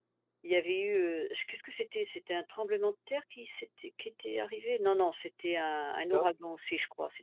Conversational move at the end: listening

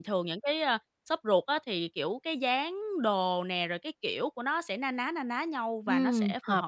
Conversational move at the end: taking over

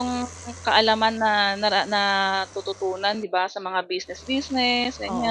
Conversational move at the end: taking over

